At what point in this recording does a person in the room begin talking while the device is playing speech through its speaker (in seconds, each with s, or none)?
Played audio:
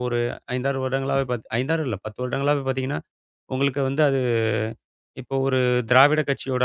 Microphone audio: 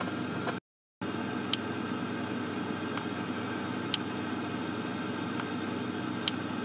none